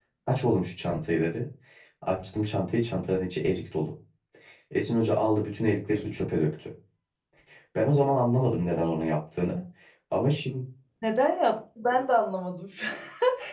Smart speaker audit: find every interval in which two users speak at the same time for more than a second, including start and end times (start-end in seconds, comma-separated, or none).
none